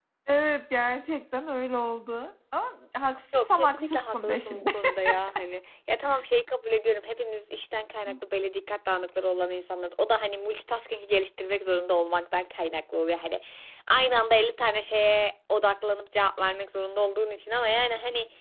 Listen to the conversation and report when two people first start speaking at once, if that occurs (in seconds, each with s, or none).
3.3 s